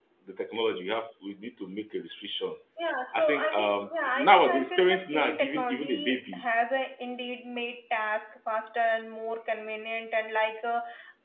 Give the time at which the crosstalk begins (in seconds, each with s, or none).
3.1 s